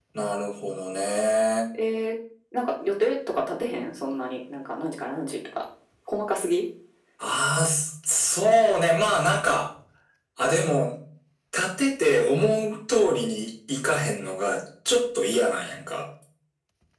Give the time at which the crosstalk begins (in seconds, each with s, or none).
none